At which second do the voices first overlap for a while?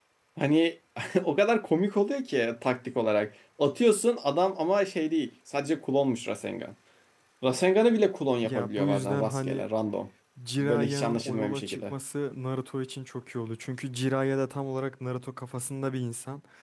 8.4 s

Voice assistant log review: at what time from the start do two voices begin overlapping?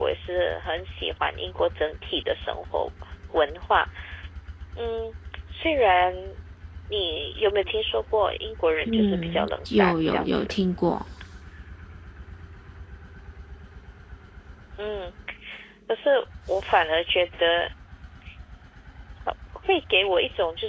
8.9 s

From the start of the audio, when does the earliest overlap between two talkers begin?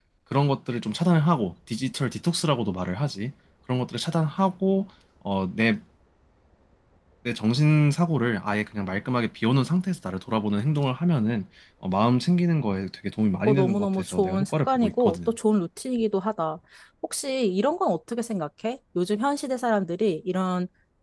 13.5 s

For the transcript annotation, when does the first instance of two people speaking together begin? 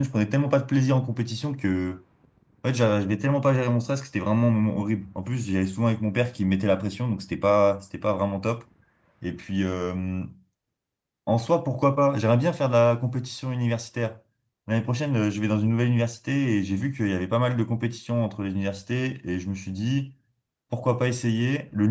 none

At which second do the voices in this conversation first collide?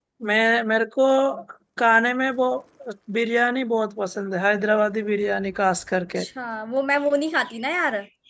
none

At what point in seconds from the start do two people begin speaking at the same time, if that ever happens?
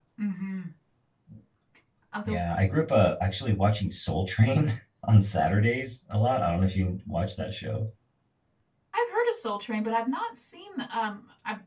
none

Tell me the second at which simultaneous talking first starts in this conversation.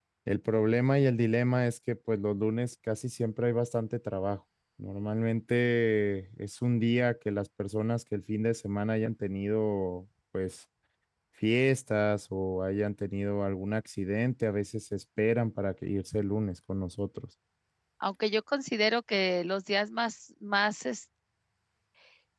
none

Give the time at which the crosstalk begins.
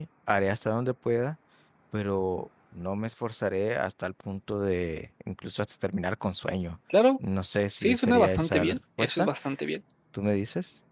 7.8 s

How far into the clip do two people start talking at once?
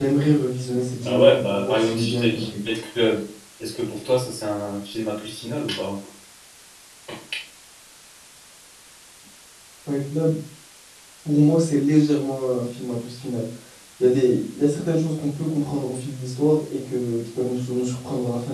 1.0 s

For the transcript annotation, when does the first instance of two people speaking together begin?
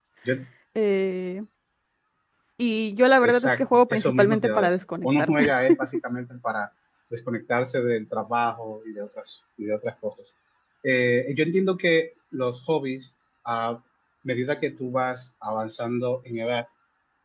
3.2 s

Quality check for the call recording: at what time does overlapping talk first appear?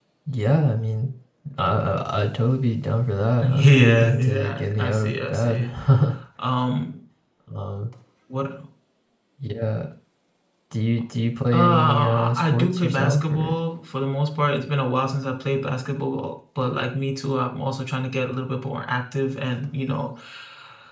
3.4 s

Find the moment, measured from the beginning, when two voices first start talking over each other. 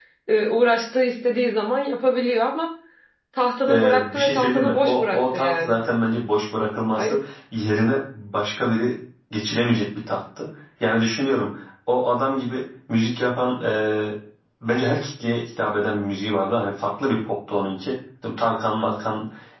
3.7 s

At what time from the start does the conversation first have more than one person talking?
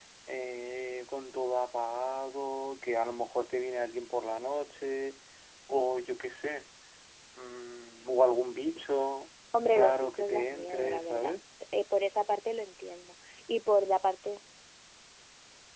9.5 s

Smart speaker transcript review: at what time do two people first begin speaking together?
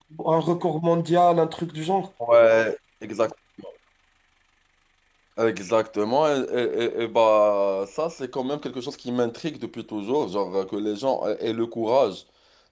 none

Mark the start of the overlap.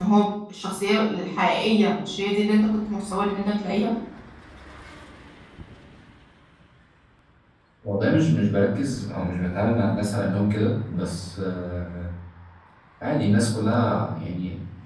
none

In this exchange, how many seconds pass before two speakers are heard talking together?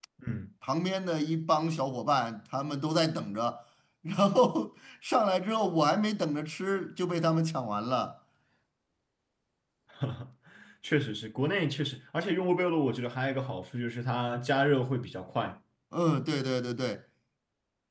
none

